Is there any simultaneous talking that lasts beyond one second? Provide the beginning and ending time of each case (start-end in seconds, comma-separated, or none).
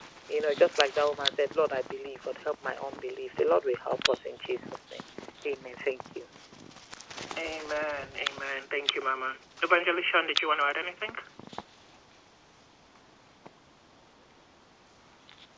none